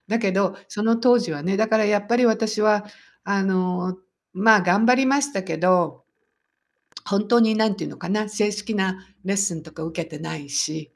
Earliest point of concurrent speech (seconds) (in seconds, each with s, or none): none